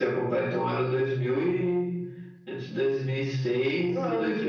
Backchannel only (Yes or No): No